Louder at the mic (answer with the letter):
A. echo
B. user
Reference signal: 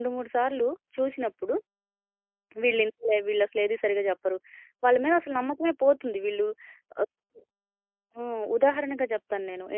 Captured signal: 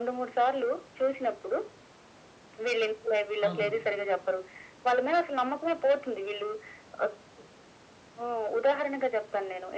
A